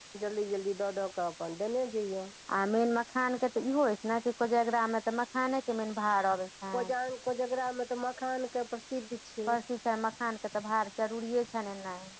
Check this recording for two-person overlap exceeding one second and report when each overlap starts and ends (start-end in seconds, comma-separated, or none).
none